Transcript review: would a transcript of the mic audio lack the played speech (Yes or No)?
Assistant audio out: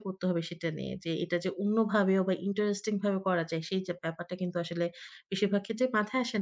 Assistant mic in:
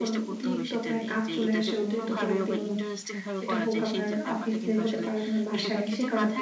No